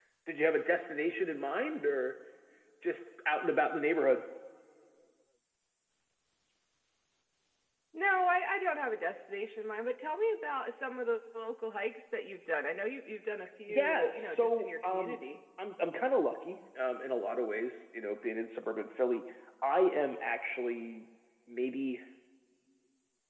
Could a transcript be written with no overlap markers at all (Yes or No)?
No